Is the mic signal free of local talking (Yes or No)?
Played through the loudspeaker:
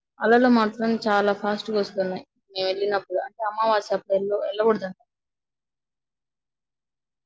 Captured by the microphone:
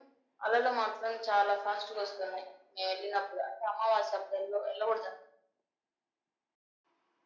Yes